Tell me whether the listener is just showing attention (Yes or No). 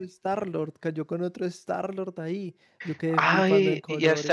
No